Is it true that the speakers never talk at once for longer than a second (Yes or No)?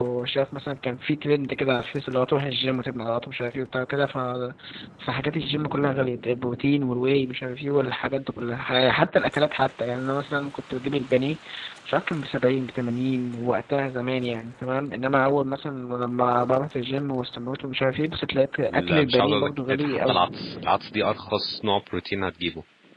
No